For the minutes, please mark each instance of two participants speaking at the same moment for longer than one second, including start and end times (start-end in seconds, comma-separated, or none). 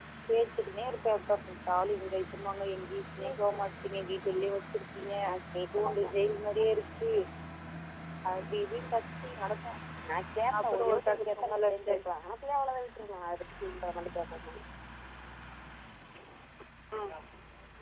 10.6-12.0